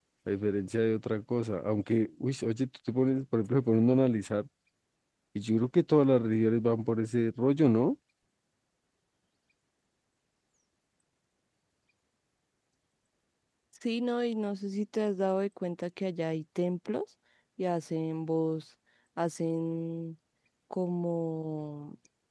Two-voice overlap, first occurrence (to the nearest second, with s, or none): none